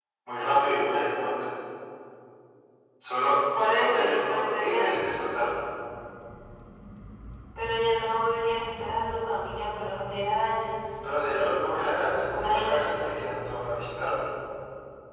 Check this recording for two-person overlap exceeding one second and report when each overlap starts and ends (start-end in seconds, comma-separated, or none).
3.7-4.9